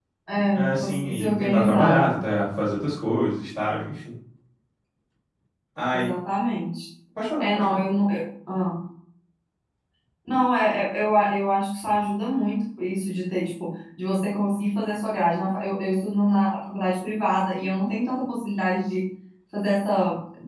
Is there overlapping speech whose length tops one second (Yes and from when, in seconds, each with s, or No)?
Yes, from 0.6 s